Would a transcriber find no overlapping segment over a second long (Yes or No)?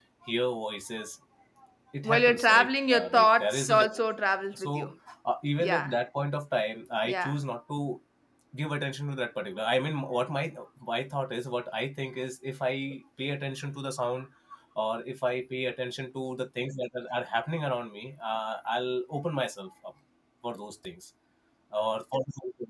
No